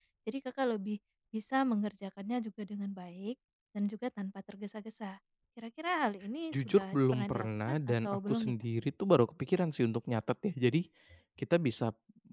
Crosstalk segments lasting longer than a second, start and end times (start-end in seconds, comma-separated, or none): 6.5-8.5